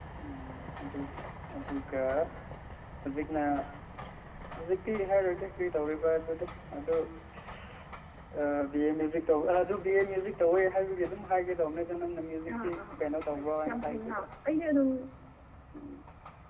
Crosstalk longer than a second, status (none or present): present